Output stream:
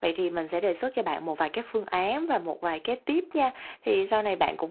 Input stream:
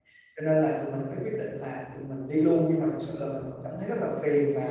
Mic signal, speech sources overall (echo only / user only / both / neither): user only